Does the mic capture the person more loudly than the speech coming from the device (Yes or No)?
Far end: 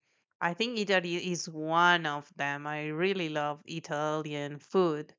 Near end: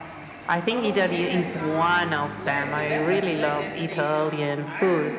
No